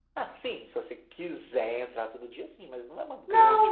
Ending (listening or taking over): taking over